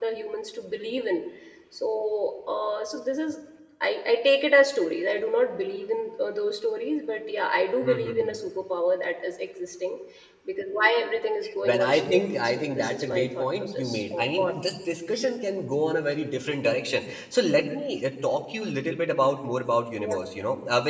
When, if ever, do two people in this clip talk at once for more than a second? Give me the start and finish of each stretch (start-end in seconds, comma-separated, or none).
11.6-14.5